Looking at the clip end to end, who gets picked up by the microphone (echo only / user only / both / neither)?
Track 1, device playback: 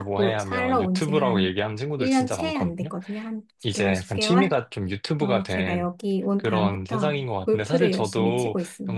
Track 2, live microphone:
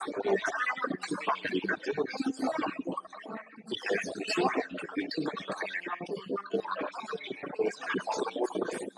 echo only